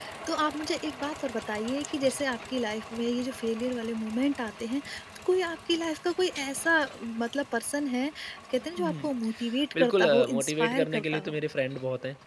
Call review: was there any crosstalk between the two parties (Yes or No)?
Yes